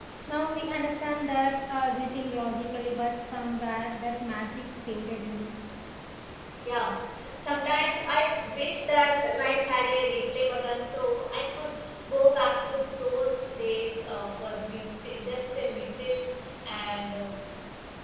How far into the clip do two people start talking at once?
none

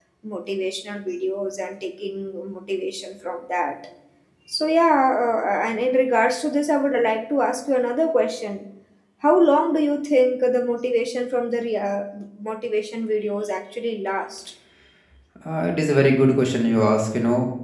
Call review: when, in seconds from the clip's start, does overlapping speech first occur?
none

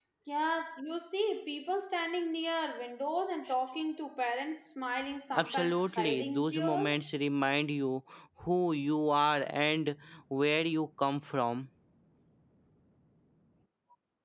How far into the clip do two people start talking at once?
5.4 s

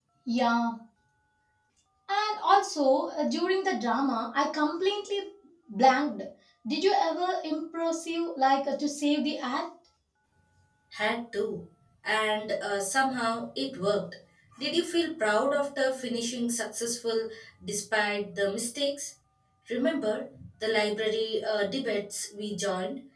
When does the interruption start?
none

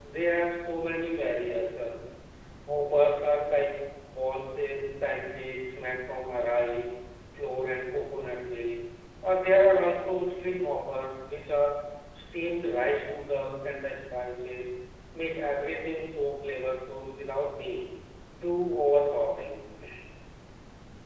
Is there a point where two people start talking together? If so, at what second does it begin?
none

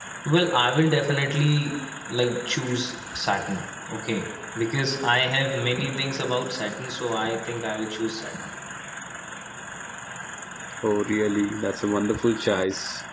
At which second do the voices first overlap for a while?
none

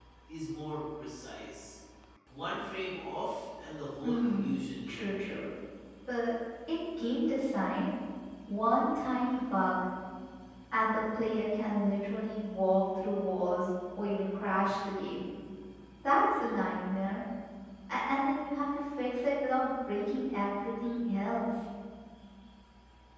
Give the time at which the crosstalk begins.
4.0 s

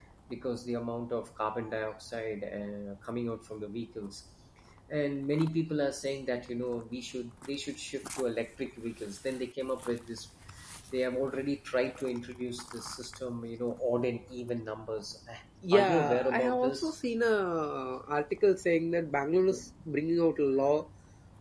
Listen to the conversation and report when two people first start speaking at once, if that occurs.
15.7 s

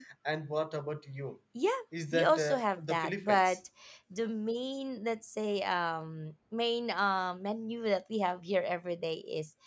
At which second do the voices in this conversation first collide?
2.1 s

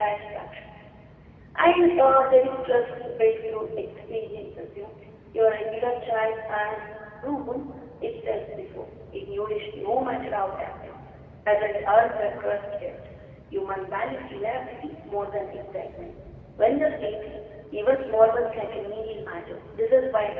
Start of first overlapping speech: none

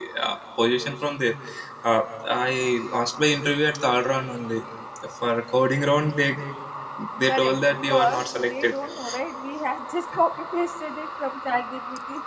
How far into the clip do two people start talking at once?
7.3 s

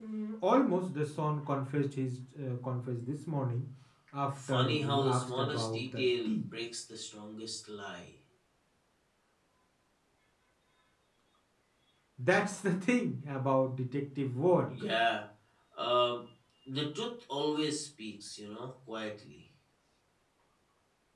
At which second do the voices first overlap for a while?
4.5 s

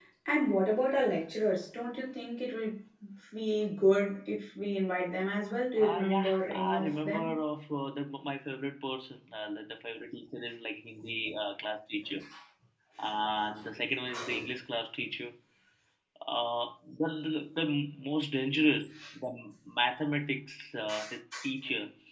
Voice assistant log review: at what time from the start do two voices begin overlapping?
5.8 s

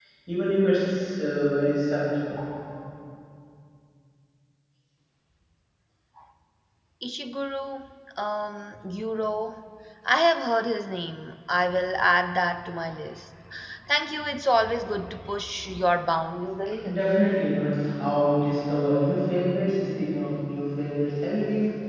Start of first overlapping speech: none

